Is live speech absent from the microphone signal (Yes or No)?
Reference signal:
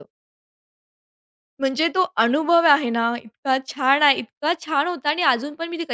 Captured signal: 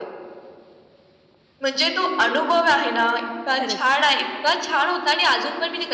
No